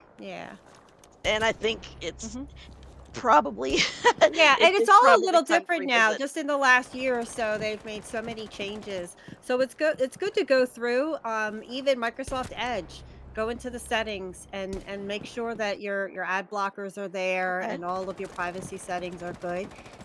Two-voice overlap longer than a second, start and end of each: 4.6-6.2

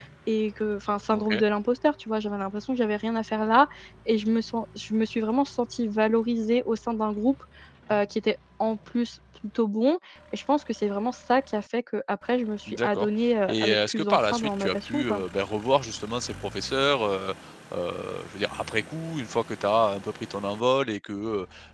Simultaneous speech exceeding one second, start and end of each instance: 13.5-15.2

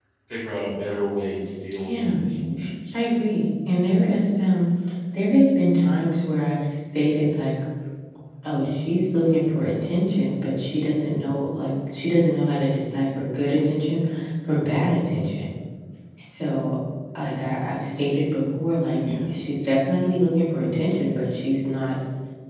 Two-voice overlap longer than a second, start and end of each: none

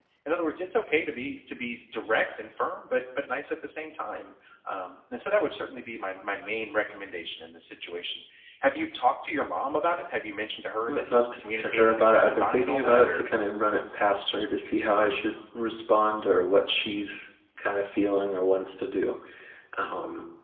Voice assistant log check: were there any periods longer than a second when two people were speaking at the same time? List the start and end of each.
10.9-13.2

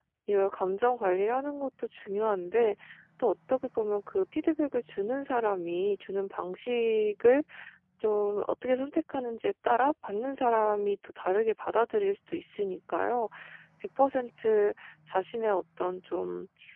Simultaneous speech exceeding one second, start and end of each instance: none

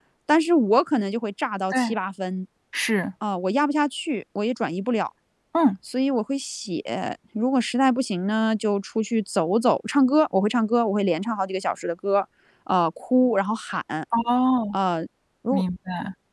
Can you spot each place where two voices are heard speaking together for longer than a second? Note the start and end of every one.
none

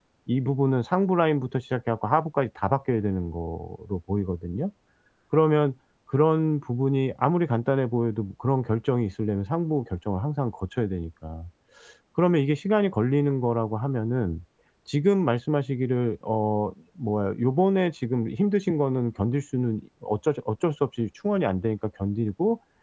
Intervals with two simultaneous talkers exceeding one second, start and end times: none

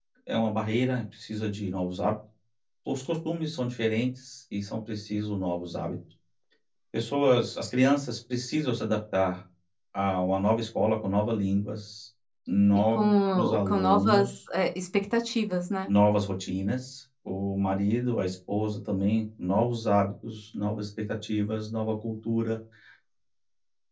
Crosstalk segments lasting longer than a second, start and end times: 12.9-14.2

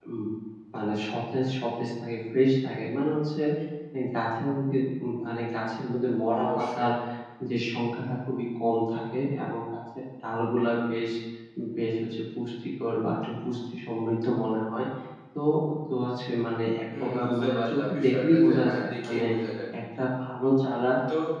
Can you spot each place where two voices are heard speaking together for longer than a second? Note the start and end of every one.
17.0-19.2

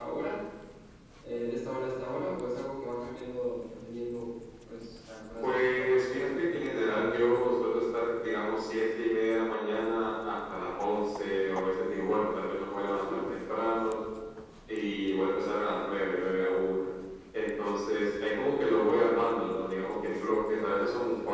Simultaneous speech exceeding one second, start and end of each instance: 5.4-7.2

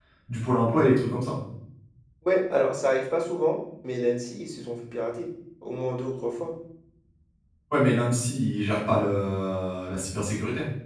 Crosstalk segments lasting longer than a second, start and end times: none

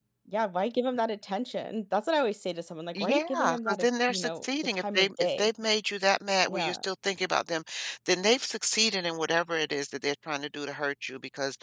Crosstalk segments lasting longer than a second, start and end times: 3.0-5.5

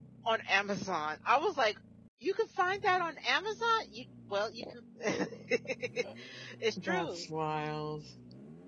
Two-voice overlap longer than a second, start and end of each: none

